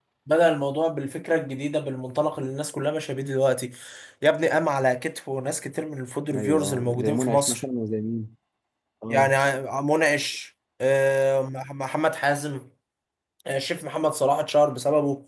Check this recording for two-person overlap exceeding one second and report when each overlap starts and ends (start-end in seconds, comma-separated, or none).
6.3-7.6